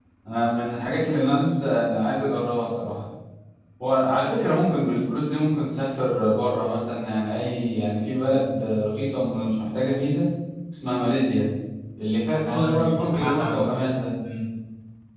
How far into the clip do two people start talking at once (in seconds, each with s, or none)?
12.5 s